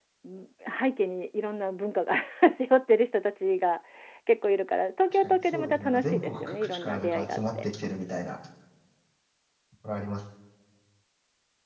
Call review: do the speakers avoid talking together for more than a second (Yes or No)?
No